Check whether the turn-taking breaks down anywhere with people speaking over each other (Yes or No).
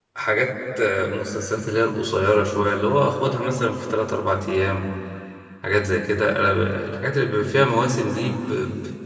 No